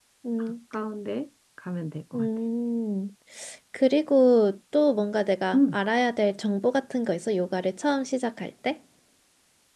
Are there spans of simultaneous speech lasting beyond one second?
No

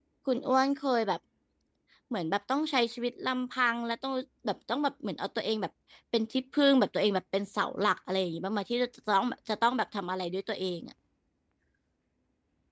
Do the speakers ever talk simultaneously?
No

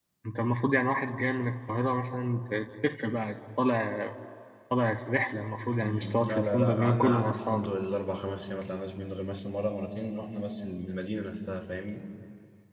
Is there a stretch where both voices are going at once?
Yes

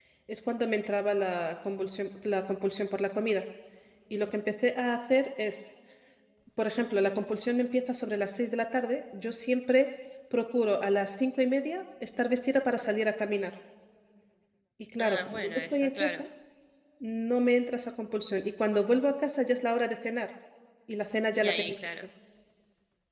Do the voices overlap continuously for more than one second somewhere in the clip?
Yes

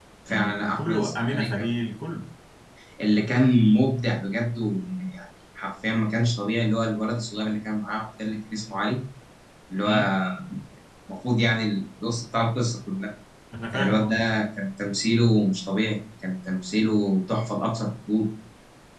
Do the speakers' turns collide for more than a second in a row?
Yes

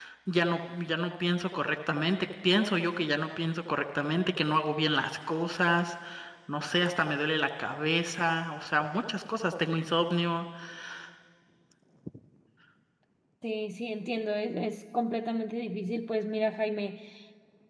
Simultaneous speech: No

